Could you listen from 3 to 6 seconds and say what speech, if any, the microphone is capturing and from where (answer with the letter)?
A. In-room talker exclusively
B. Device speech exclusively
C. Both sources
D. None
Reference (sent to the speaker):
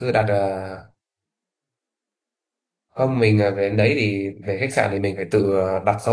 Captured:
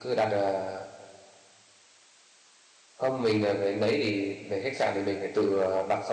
B